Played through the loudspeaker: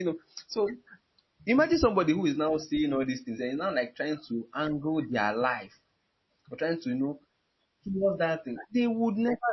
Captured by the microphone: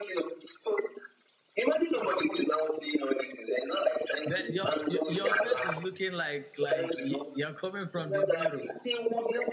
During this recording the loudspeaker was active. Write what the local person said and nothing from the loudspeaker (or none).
that your your your face is looking like like y- you're coming from the mirror